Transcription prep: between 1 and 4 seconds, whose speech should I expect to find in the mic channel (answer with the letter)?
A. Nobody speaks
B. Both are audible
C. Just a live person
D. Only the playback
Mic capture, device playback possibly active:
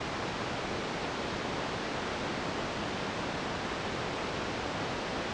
A